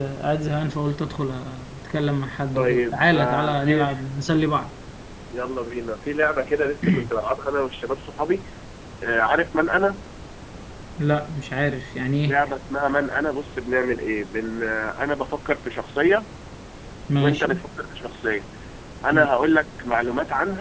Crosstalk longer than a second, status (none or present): present